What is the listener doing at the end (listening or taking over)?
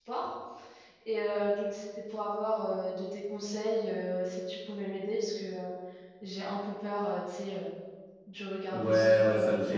taking over